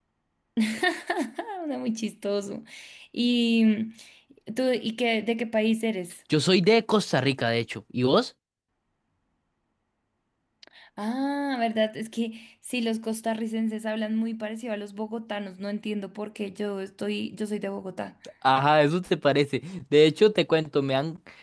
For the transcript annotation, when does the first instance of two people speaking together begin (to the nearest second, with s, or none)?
none